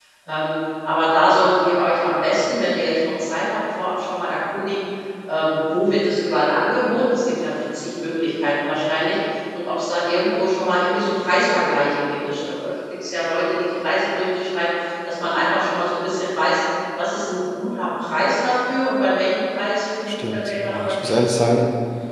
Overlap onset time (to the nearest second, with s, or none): 20 s